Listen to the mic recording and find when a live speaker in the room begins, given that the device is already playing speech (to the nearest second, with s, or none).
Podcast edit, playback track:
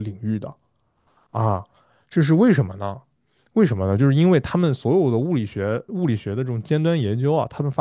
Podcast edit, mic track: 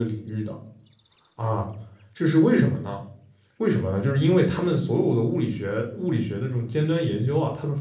none